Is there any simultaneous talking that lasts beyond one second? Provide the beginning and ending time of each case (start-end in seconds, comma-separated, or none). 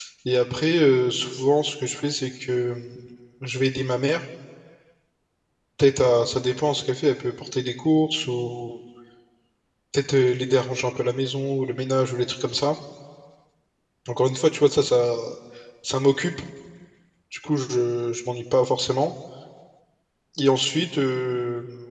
none